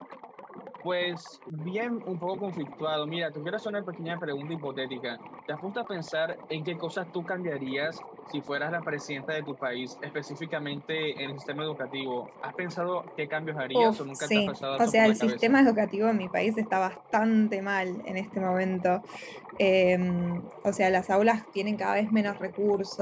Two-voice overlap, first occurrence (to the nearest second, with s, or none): 14 s